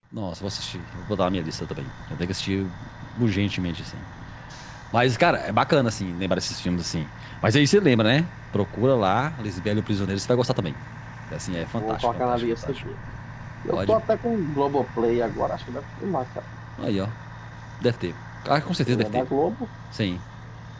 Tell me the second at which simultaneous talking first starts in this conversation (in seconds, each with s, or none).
11.5 s